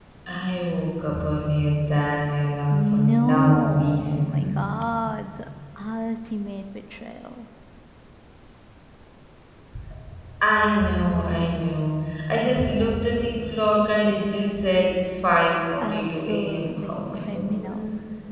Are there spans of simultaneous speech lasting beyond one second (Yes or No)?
Yes